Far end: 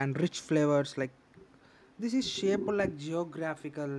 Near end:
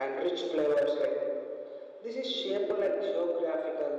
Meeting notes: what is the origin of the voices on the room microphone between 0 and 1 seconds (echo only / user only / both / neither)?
echo only